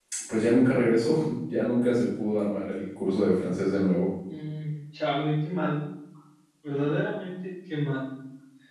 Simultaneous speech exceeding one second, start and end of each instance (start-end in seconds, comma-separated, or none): none